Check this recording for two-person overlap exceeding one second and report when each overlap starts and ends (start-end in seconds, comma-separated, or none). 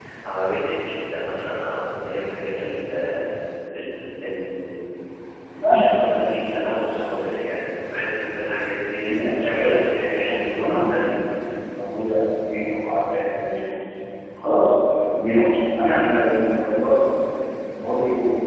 9.1-11.1